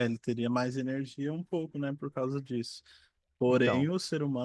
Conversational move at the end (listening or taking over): listening